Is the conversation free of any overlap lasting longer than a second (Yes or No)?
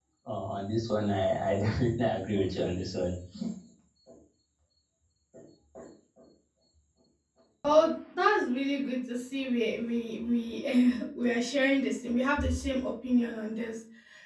Yes